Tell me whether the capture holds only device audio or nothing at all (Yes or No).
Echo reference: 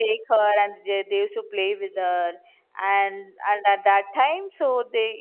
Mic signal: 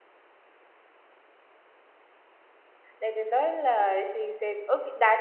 No